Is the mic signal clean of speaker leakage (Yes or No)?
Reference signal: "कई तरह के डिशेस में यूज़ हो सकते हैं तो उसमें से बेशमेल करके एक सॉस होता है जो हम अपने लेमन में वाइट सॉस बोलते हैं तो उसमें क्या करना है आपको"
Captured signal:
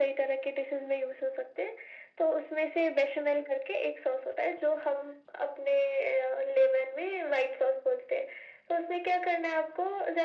No